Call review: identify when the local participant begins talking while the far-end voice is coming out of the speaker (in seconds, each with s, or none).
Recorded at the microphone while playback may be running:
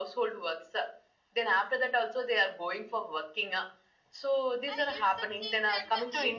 4.7 s